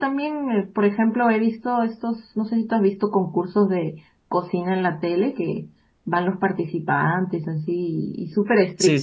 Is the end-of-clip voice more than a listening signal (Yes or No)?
Yes